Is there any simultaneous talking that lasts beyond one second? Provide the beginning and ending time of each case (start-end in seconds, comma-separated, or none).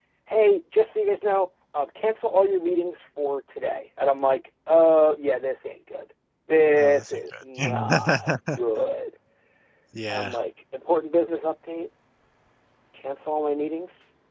6.8-8.6